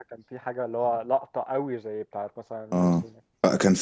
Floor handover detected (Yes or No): Yes